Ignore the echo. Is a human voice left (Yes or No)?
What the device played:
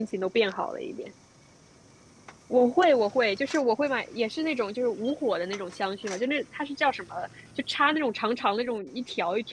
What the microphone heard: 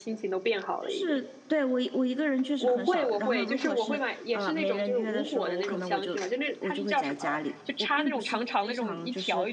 Yes